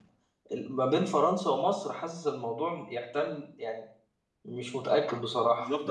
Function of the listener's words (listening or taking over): taking over